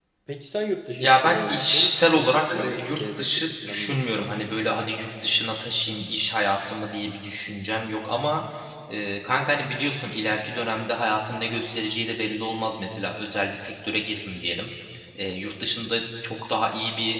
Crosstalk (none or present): present